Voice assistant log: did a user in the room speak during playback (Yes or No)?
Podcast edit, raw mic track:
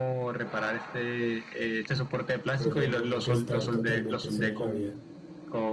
Yes